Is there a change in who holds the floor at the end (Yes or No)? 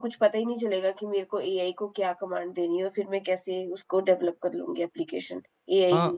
Yes